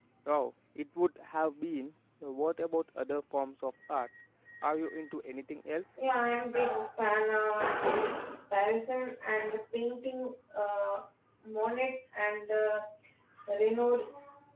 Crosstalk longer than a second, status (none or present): none